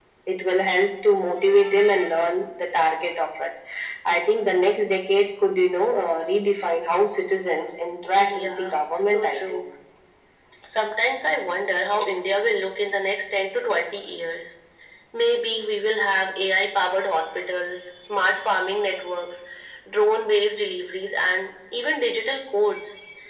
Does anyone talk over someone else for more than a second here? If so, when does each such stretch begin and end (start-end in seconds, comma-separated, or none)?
8.4-9.6